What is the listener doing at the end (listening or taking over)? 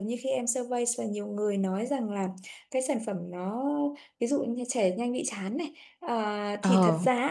listening